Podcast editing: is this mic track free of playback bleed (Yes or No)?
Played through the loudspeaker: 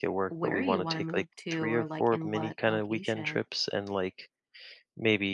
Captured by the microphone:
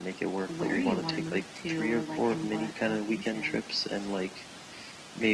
No